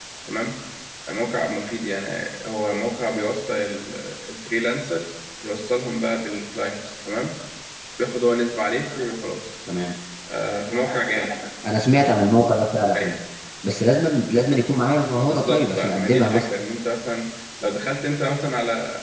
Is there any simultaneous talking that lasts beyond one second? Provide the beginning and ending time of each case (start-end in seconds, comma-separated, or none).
15.1-16.5